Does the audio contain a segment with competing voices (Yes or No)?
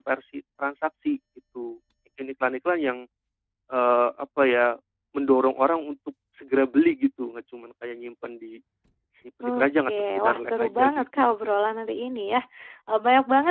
Yes